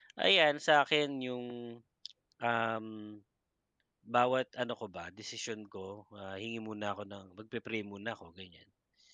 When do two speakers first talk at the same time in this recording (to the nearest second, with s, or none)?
none